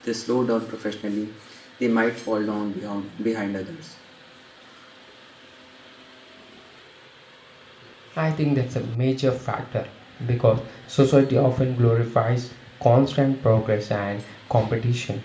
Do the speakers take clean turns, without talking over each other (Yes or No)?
Yes